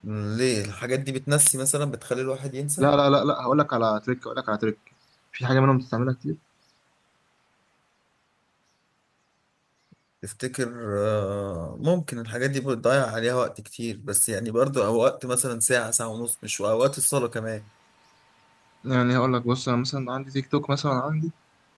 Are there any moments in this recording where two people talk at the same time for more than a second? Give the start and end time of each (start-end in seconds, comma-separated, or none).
none